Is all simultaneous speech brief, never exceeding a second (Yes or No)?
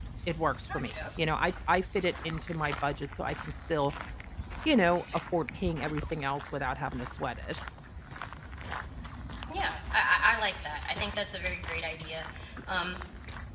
Yes